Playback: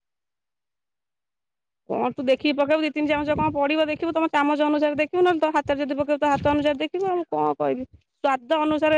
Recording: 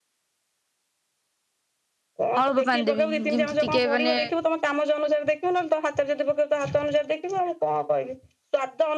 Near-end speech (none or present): present